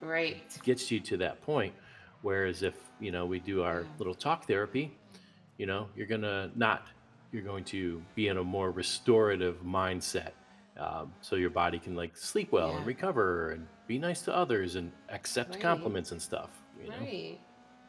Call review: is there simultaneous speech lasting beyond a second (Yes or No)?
No